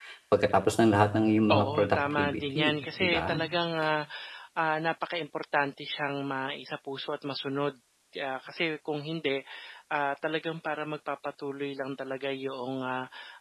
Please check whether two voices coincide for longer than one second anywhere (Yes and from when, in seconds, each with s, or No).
Yes, from 1.5 s